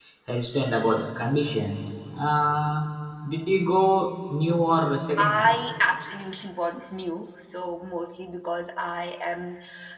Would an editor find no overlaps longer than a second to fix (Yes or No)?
Yes